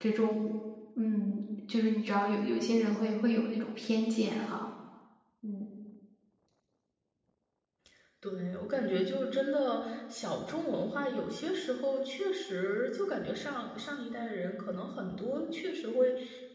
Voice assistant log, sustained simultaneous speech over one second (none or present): none